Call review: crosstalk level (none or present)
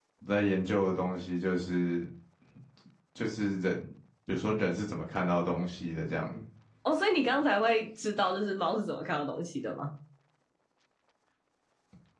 none